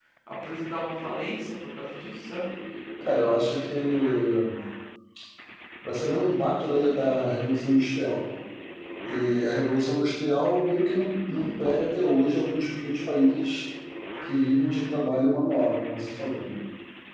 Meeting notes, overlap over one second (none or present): none